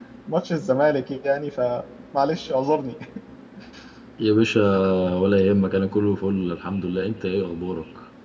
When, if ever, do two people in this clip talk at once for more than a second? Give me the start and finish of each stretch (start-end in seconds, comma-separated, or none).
none